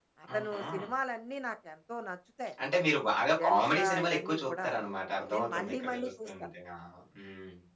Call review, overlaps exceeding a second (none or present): present